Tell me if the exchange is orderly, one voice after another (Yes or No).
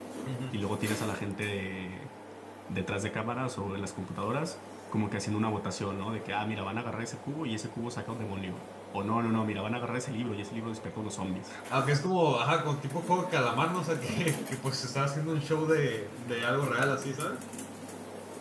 Yes